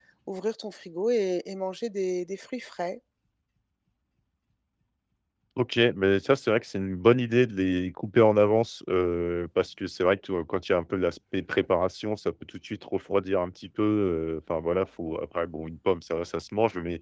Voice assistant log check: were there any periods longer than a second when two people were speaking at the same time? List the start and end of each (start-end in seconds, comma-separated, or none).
none